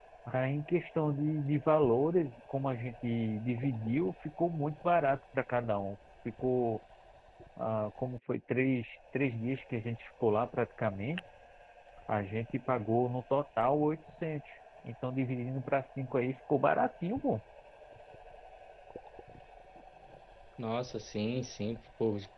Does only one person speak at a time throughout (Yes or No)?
Yes